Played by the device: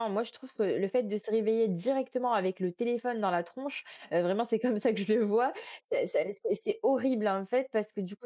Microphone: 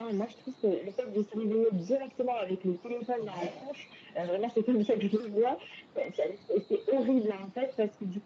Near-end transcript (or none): Ouais.